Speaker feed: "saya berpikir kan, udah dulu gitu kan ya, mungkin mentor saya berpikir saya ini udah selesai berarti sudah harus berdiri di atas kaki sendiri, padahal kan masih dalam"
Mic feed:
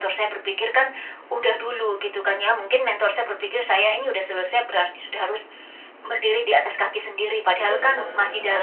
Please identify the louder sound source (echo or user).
echo